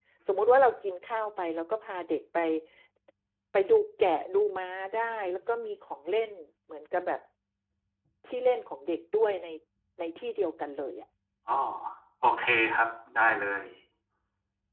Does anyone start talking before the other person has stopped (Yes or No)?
No